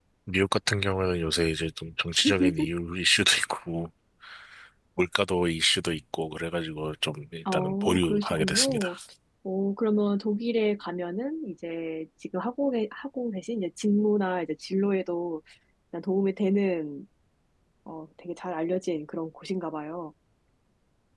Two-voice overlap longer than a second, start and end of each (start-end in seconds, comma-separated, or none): 7.5-8.9